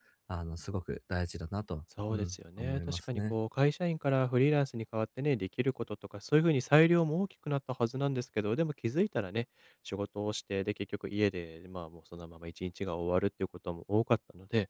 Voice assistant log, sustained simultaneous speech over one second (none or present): present